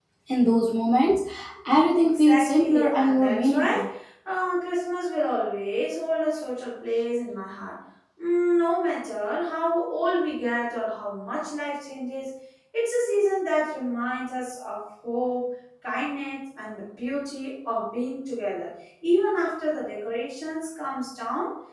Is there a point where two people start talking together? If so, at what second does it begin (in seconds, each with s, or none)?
2.2 s